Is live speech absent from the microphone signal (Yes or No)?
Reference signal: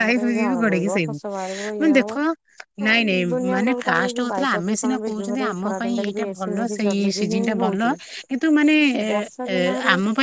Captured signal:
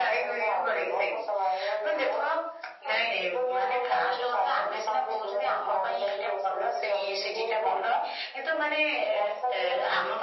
Yes